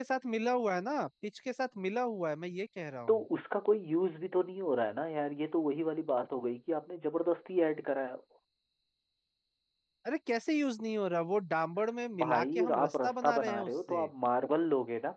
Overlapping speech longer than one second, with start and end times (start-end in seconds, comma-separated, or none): 12.2-14.1